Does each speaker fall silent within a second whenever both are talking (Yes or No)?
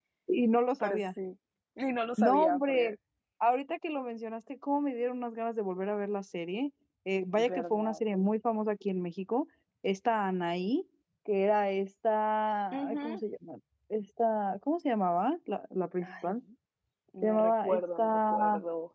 No